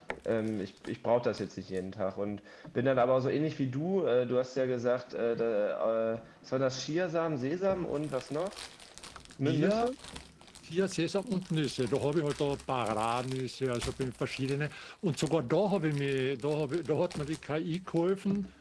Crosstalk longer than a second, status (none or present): none